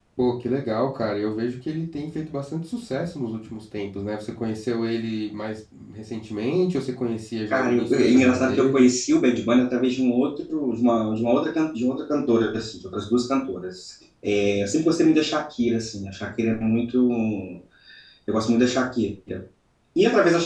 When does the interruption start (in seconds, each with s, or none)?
7.5 s